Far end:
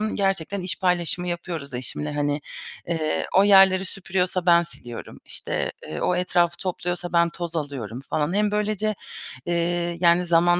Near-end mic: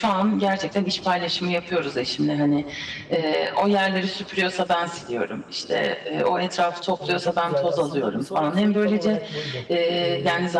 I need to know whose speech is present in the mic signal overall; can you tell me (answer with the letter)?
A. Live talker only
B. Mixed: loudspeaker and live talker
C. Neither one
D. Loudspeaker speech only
B